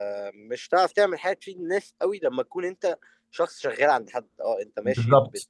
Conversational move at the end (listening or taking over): listening